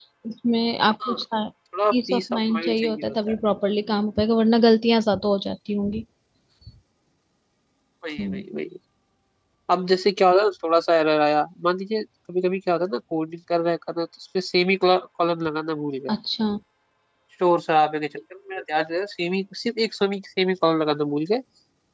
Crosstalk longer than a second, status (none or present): present